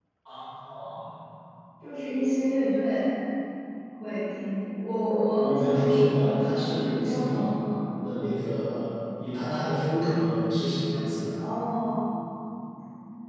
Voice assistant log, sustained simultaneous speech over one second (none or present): present